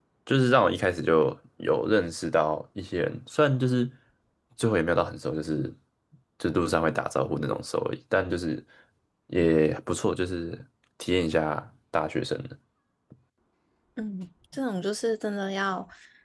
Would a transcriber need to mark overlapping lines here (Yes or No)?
No